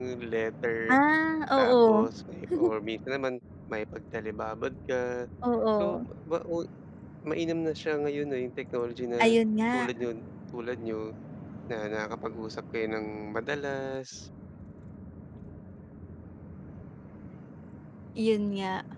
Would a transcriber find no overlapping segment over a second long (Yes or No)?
Yes